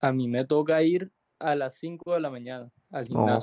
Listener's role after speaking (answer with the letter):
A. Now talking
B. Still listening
A